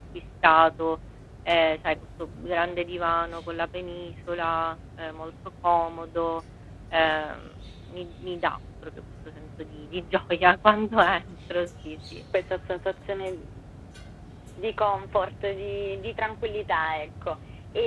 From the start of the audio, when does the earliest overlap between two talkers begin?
none

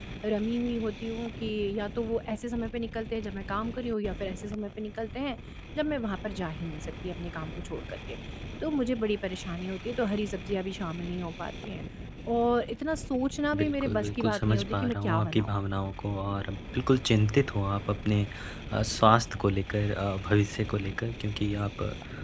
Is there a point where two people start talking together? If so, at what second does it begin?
13.5 s

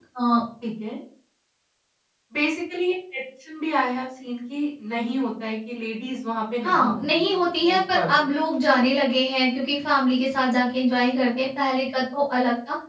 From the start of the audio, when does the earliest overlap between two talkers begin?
6.6 s

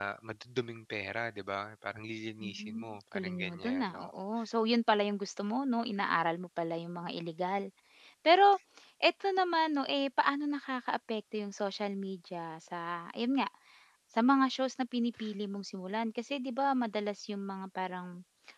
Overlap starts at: 2.4 s

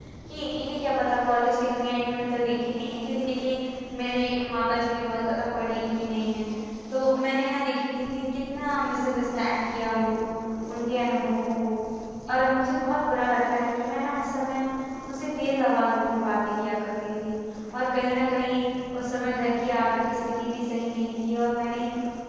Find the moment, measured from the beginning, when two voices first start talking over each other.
none

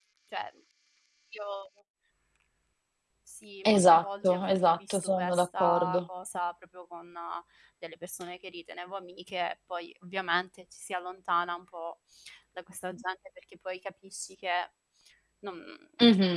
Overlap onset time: 3.6 s

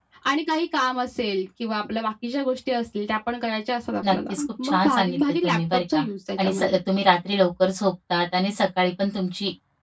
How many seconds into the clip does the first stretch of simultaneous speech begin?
4.1 s

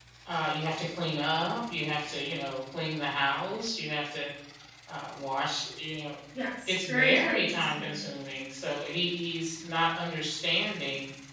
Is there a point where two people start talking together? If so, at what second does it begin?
6.7 s

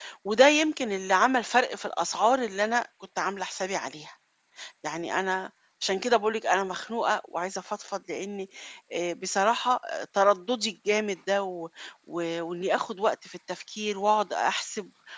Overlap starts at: none

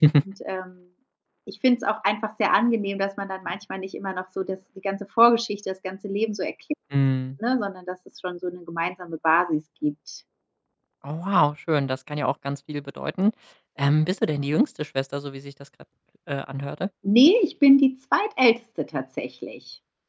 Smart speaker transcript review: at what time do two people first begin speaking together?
none

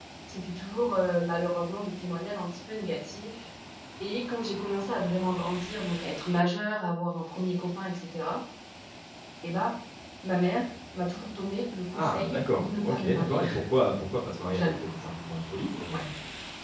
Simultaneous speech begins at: 11.9 s

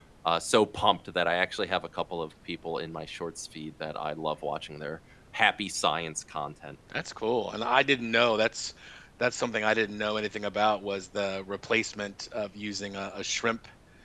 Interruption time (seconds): none

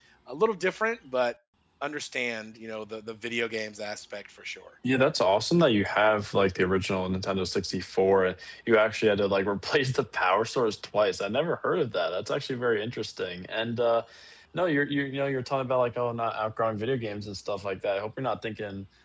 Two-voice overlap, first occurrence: none

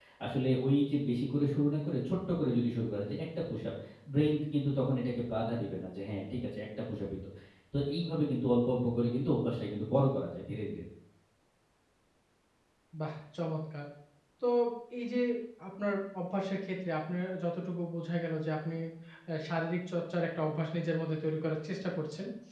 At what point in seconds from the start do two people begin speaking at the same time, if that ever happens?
none

